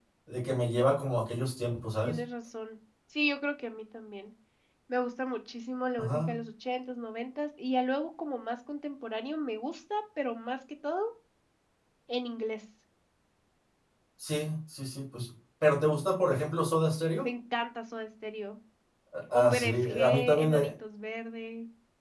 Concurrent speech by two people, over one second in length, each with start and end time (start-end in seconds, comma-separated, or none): 19.3-20.7